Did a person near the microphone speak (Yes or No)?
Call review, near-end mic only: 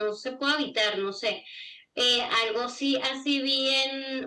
No